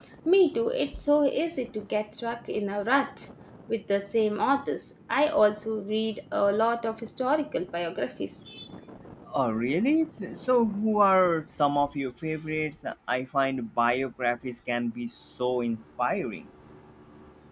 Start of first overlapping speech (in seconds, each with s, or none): none